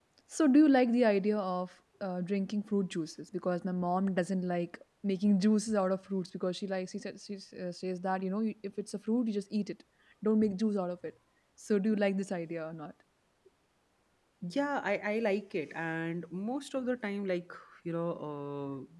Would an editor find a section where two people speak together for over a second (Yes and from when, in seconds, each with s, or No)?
No